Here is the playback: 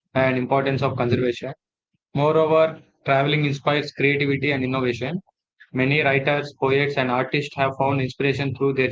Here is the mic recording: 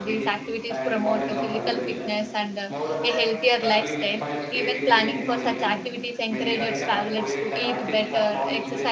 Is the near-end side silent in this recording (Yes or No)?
No